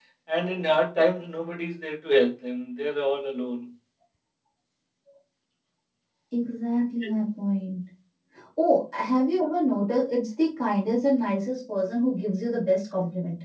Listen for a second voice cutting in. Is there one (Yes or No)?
No